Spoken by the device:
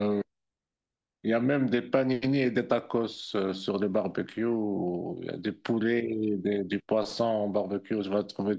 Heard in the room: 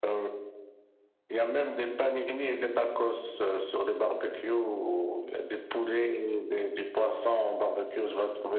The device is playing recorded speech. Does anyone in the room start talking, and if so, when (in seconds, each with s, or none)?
none